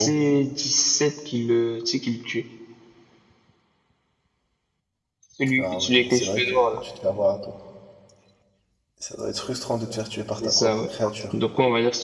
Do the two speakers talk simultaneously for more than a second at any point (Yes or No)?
Yes